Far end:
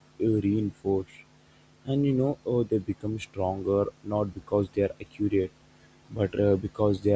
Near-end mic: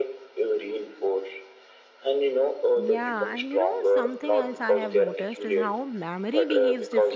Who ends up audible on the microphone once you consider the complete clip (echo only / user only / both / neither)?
both